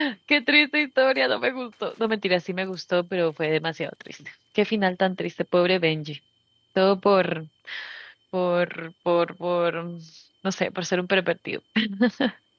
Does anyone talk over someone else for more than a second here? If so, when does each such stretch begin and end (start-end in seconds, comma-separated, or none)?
none